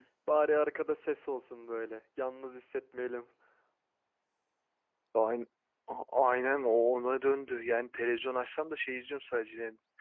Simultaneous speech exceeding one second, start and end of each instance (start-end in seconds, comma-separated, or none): none